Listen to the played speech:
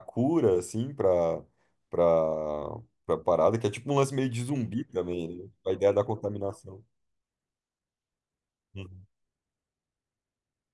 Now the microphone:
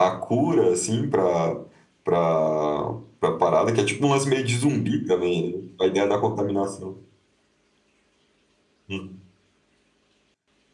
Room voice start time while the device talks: none

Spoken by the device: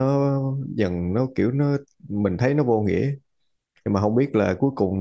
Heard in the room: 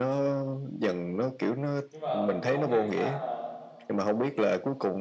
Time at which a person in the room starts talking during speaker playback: 2 s

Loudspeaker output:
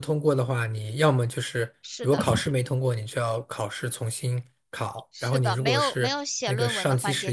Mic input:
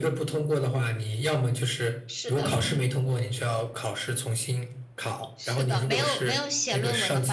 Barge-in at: none

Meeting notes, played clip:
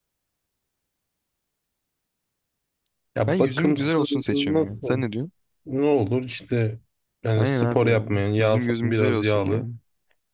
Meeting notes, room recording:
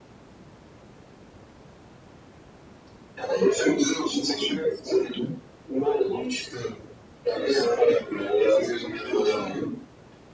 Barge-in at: none

